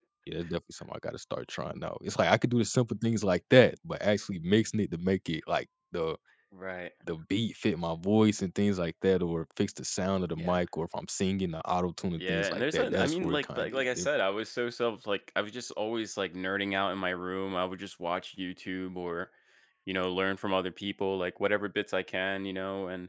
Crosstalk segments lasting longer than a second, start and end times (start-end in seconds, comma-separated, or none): 12.2-14.1